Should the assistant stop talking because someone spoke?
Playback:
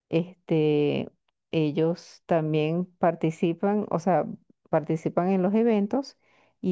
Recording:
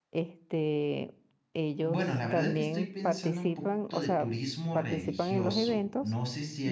Yes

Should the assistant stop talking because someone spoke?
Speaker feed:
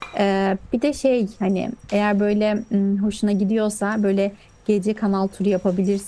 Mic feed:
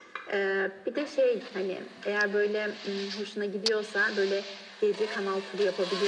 No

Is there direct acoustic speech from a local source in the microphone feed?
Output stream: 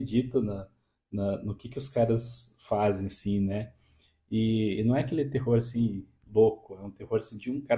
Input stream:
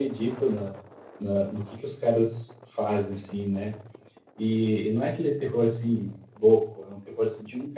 No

